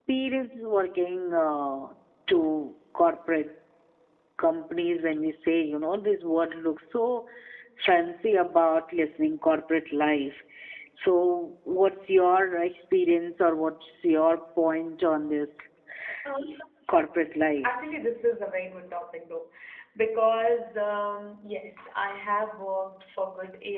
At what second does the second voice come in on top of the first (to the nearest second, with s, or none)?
none